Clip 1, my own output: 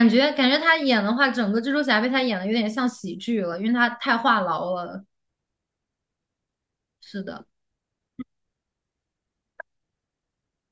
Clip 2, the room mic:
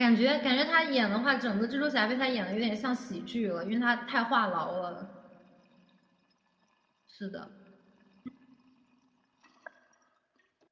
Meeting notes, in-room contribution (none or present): none